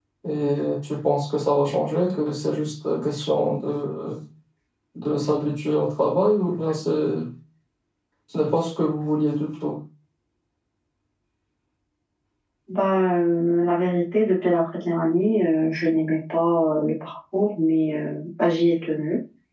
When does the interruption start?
none

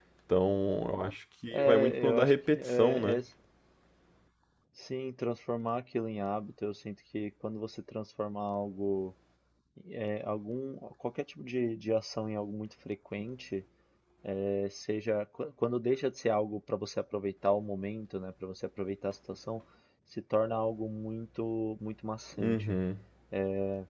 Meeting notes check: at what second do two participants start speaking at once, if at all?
1.5 s

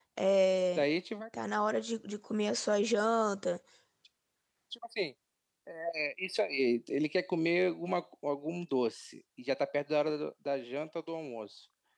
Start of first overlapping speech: none

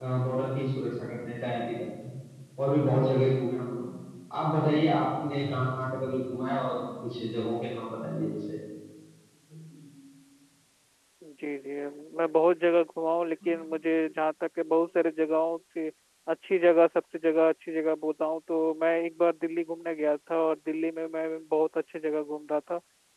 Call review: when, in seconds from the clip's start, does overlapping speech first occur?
none

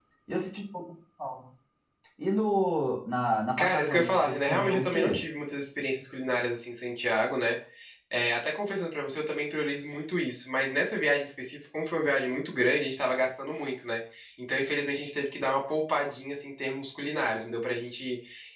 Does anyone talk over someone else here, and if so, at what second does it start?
3.6 s

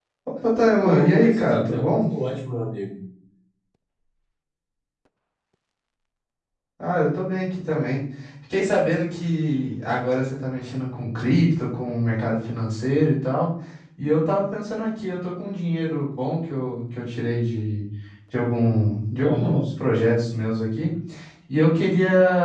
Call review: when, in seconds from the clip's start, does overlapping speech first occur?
0.8 s

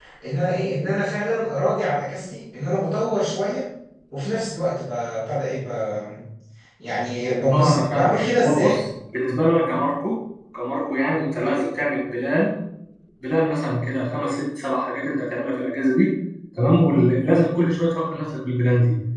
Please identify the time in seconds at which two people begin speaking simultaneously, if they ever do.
7.5 s

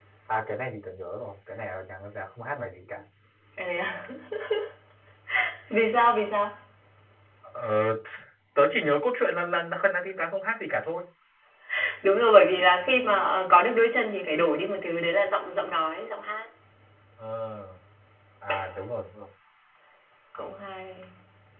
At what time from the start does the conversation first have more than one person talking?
none

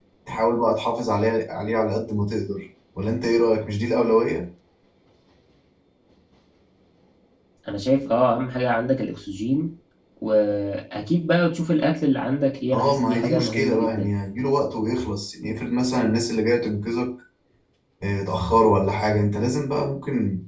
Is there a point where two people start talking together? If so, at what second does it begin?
12.7 s

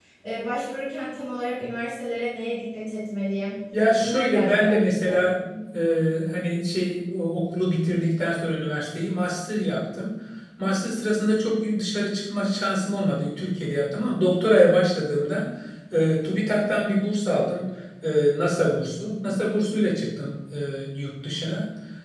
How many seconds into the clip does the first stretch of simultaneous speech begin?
4.0 s

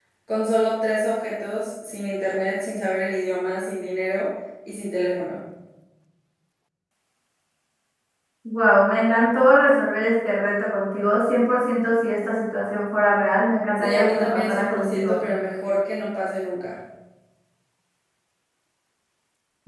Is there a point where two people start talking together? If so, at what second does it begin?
13.8 s

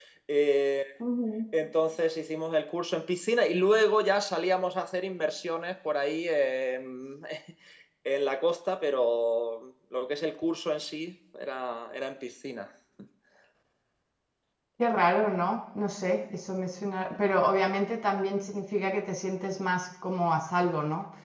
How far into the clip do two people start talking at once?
none

